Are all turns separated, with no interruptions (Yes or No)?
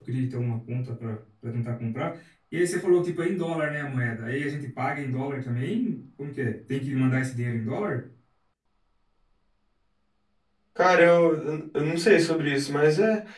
Yes